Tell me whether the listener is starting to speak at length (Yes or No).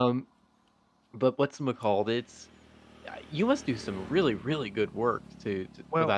Yes